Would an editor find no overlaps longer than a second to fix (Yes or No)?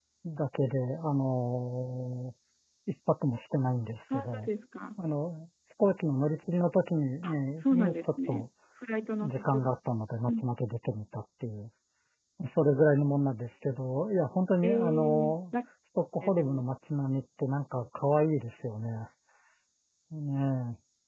No